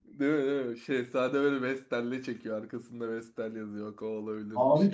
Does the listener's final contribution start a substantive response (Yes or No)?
Yes